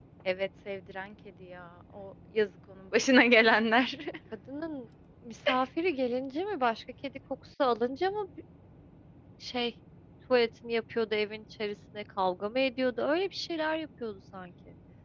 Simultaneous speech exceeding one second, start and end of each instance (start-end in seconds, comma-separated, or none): none